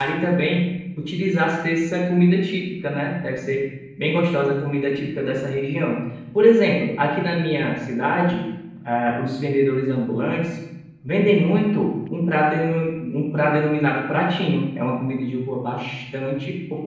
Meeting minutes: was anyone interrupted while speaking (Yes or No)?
No